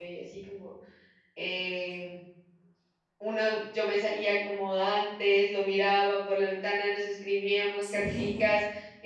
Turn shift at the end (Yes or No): No